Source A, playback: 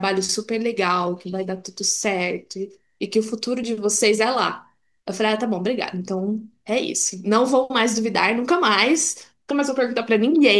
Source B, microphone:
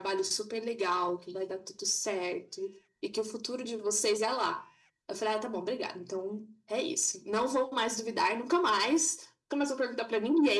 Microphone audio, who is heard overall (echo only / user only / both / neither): echo only